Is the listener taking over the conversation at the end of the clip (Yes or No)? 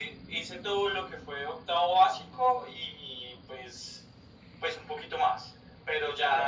No